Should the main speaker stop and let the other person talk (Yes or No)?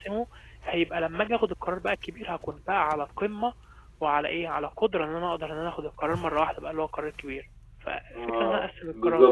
Yes